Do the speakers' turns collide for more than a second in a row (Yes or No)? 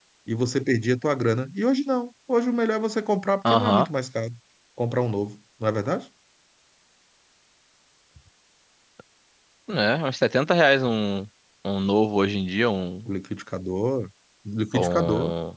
No